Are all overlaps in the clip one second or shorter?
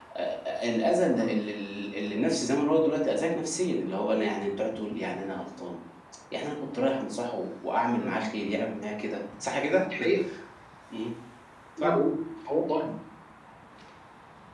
Yes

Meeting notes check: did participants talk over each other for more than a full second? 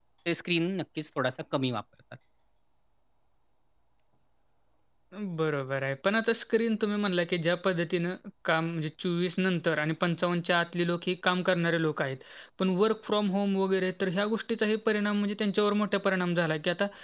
No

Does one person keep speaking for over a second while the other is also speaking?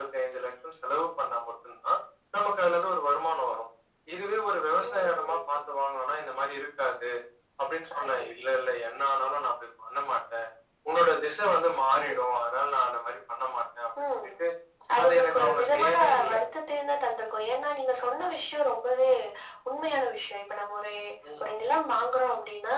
Yes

